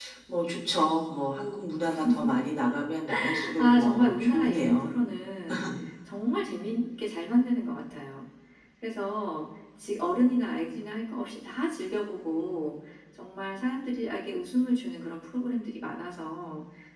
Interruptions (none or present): present